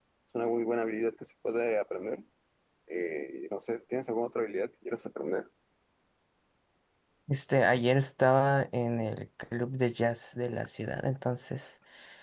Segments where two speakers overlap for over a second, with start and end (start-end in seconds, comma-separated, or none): none